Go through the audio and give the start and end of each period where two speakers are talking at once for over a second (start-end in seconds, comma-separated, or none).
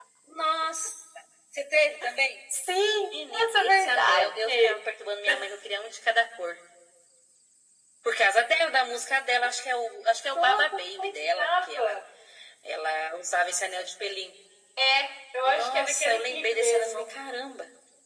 3.3-4.8, 10.3-12.0, 15.4-17.1